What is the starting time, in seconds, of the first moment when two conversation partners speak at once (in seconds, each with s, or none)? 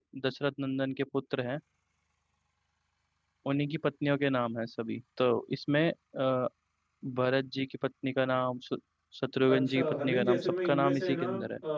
9.5 s